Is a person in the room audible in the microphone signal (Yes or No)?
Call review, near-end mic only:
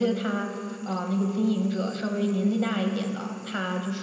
No